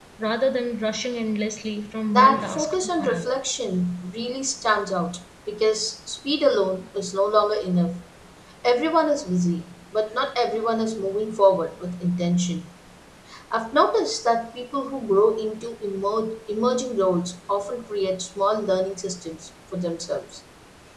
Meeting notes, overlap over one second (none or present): present